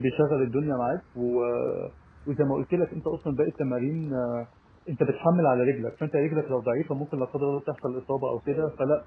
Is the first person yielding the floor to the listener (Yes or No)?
No